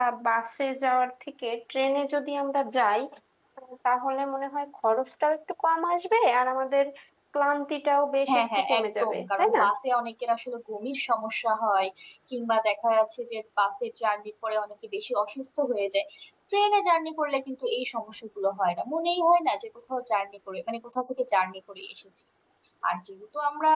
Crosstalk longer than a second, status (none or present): present